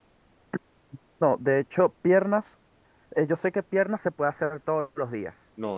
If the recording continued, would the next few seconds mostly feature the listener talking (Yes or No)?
Yes